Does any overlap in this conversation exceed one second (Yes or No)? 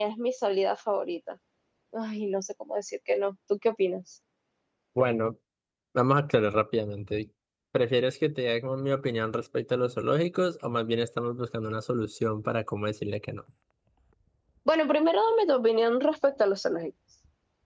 No